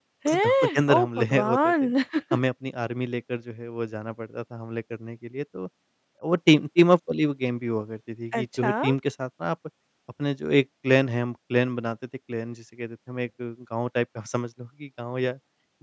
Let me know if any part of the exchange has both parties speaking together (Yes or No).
Yes